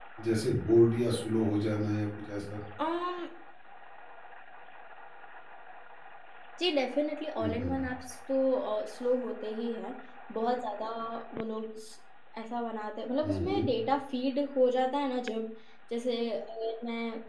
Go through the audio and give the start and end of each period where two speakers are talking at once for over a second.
none

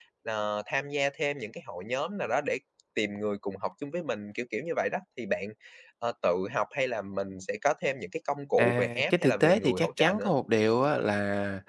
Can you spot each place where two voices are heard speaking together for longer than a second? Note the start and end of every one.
8.6-10.3

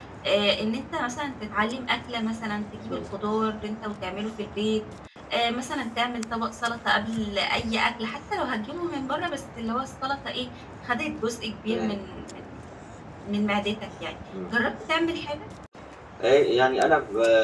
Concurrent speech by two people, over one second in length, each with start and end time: none

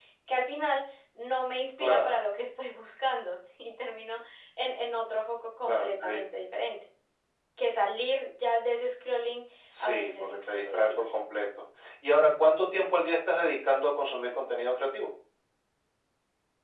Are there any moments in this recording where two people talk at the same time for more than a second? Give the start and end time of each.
9.8-11.0

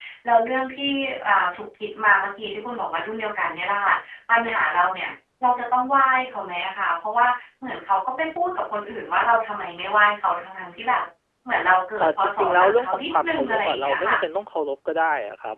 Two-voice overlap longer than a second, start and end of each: 12.0-14.1

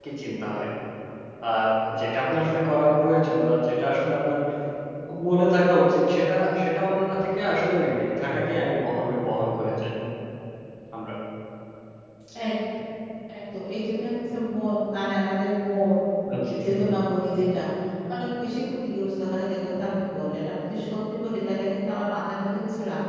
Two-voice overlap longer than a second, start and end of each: none

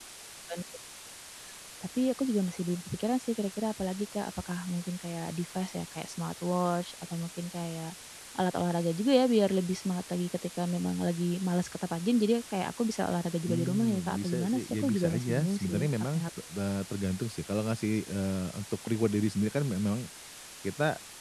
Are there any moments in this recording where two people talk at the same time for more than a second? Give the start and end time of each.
13.5-16.2

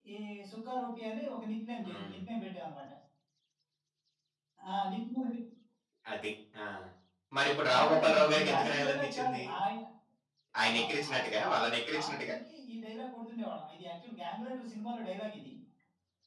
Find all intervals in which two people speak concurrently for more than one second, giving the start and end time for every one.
7.7-9.4, 10.7-12.3

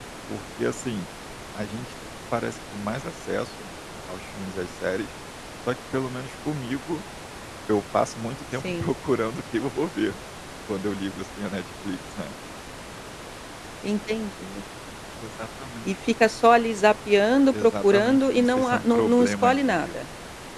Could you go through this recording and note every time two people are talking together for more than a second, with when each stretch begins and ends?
17.5-19.9

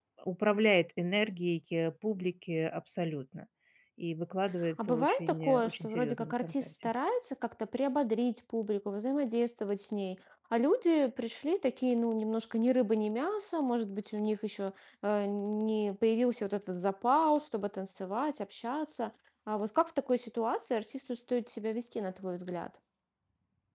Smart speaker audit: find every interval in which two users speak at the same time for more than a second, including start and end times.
4.8-6.7

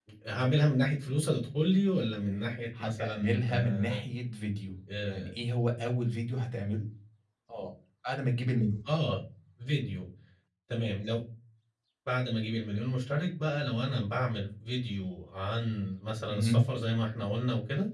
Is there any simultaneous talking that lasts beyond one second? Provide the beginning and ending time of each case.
2.8-4.0

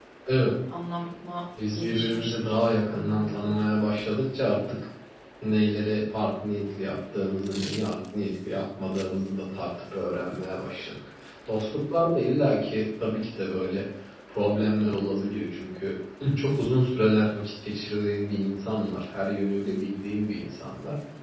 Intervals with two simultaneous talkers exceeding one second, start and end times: 1.7-3.7

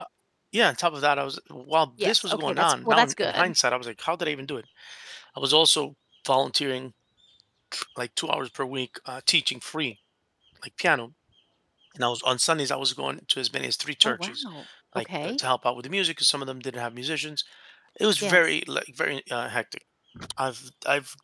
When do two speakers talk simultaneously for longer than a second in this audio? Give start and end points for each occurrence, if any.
2.0-3.5

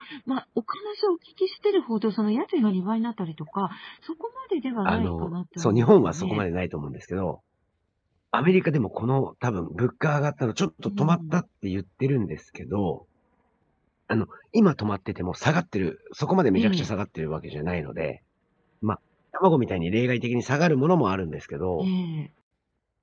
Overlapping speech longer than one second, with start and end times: 4.8-6.4

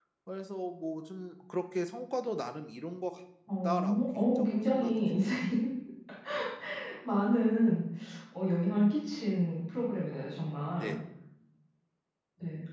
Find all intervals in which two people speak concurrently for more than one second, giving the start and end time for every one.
3.6-5.4

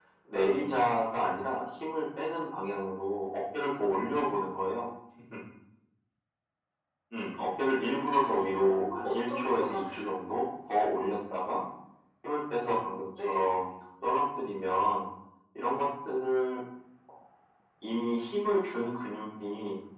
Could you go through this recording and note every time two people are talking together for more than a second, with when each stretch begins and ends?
8.2-9.8

